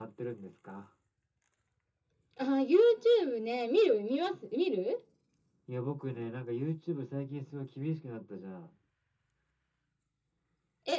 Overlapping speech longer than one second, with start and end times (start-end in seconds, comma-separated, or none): none